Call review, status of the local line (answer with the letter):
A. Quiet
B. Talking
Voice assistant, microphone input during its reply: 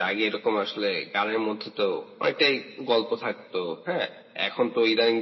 A